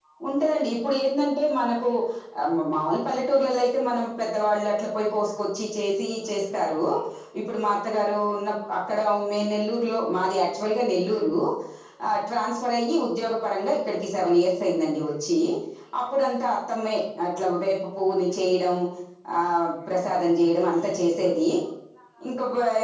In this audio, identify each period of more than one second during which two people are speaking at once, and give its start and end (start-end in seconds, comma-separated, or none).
none